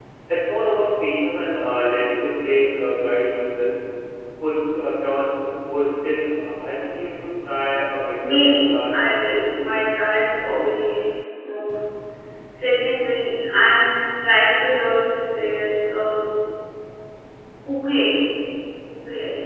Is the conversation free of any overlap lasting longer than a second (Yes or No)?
No